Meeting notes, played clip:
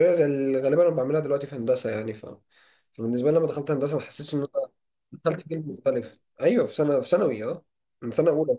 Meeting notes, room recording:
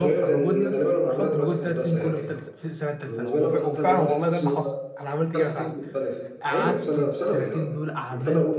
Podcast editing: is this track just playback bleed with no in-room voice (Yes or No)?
No